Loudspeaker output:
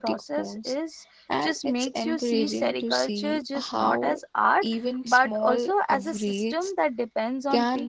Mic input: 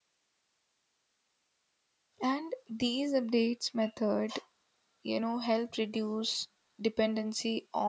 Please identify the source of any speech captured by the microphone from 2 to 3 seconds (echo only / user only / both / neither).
user only